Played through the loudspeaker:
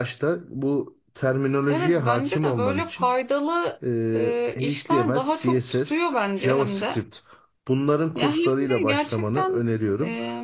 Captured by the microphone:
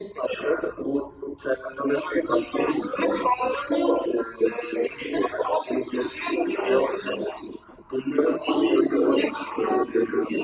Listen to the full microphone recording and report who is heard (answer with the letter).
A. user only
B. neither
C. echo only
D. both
C